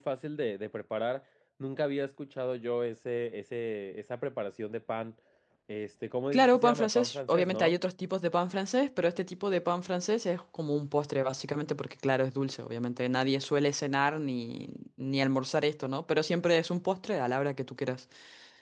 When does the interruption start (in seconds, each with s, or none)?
6.3 s